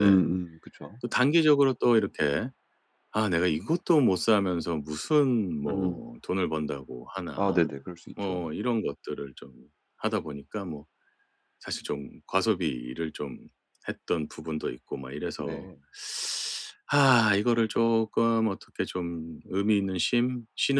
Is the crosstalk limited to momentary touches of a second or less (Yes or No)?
Yes